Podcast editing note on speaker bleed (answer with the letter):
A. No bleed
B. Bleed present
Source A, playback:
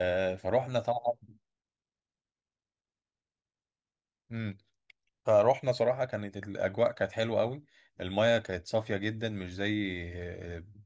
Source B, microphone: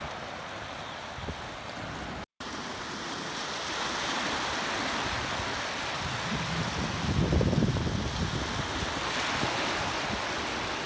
A